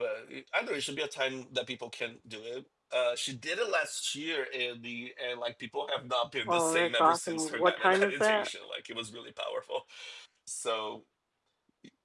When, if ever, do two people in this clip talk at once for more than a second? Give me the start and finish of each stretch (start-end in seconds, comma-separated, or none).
6.5-8.5